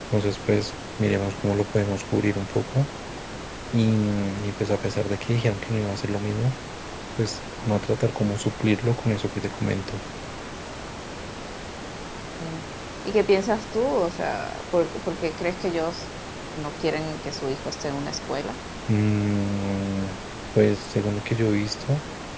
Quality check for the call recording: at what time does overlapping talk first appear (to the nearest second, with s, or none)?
none